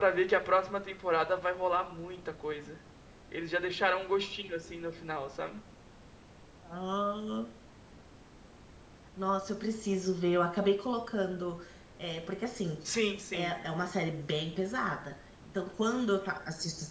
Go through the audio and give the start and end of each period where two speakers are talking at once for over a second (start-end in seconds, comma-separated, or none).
none